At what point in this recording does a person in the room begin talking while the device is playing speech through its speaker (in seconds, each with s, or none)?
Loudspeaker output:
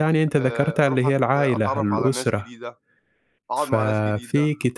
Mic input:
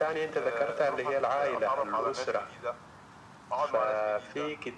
none